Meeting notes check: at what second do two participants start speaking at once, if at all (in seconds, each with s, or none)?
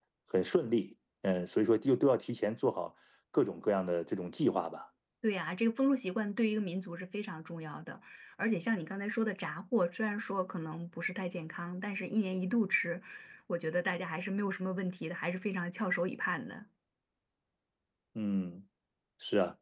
none